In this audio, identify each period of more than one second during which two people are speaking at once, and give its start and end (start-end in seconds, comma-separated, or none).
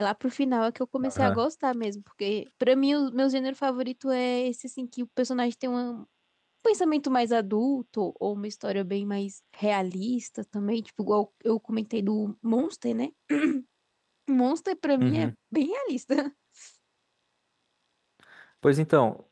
none